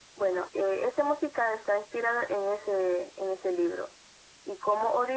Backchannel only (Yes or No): Yes